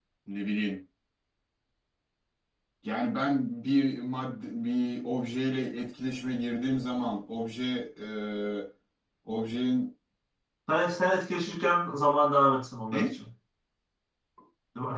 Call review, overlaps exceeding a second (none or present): none